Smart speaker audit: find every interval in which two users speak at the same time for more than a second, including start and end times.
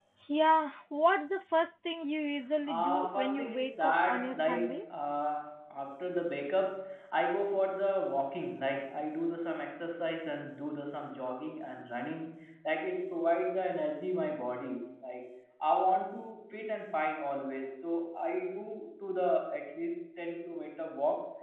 2.6-4.8

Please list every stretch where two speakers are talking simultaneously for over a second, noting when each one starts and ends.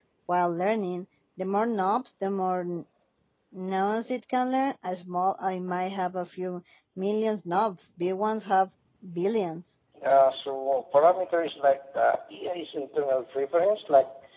none

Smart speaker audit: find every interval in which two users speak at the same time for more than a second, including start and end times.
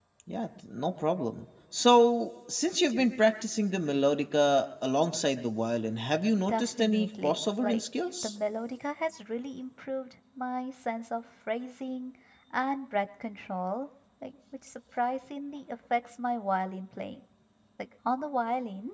6.5-7.8

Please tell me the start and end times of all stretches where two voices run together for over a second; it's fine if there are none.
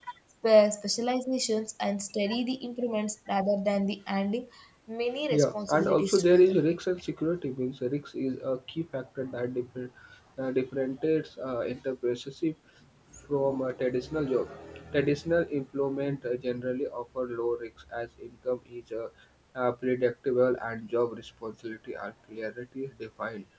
5.3-6.5

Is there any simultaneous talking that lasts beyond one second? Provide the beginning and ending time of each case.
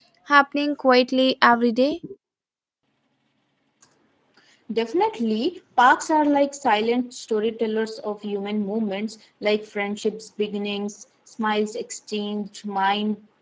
none

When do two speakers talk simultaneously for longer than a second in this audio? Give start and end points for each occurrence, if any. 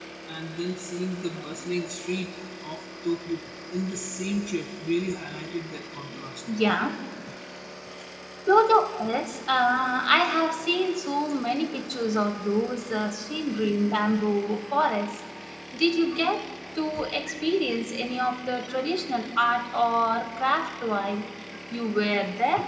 none

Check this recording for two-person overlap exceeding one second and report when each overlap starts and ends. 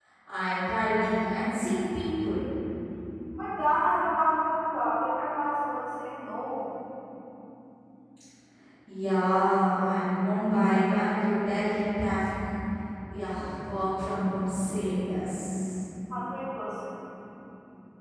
none

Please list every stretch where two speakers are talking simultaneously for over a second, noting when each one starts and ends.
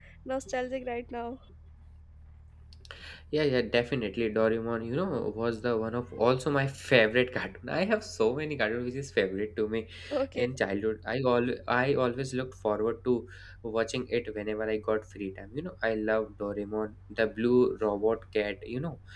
none

